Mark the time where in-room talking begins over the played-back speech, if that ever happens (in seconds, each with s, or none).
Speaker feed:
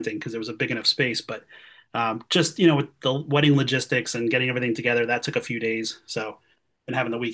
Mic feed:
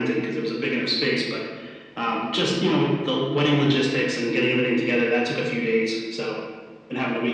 none